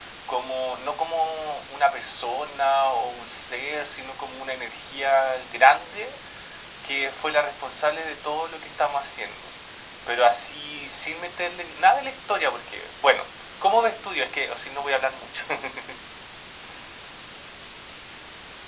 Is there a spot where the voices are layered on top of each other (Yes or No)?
No